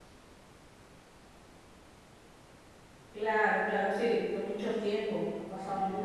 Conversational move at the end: taking over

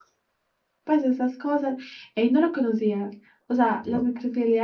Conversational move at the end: listening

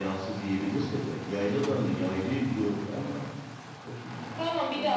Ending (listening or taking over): taking over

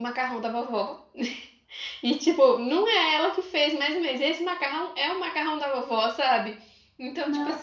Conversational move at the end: listening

